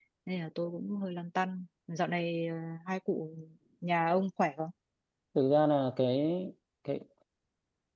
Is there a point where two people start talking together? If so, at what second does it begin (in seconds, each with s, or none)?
none